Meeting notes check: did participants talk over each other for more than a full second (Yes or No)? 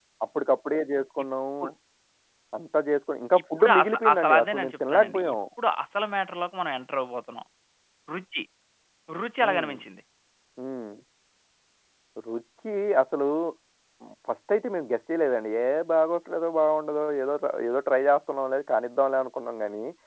Yes